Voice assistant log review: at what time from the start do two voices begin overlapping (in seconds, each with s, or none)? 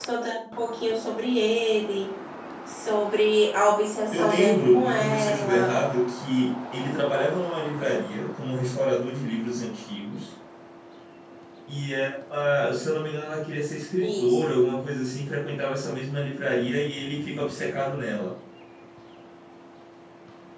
4.1 s